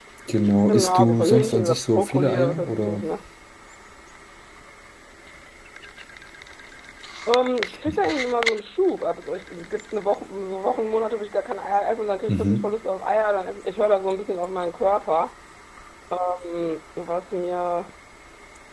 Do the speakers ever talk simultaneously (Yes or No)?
Yes